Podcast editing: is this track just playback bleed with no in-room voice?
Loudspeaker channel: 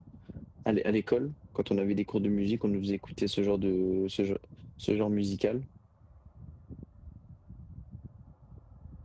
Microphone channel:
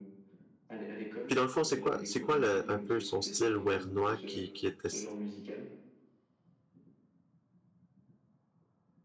No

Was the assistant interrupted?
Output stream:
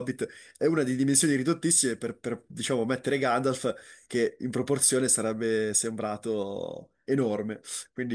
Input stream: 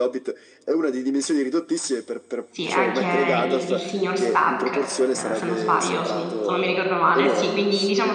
Yes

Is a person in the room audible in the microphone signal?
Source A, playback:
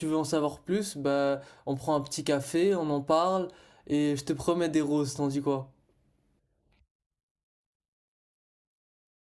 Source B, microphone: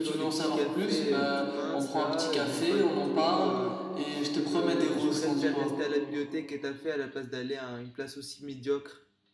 Yes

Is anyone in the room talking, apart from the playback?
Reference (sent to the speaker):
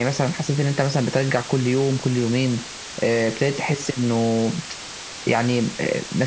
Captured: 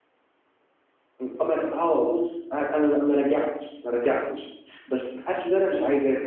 Yes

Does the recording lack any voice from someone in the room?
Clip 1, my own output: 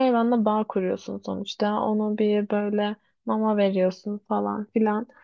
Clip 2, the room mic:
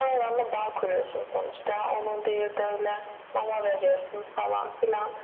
Yes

